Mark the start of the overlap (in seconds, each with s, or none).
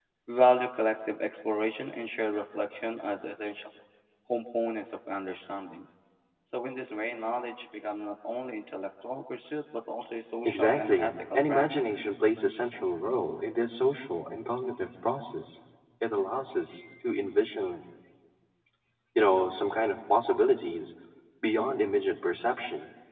10.4 s